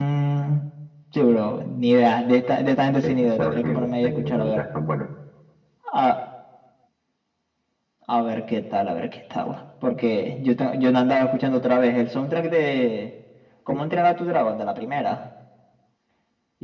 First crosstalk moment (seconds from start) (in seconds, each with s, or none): 3.0 s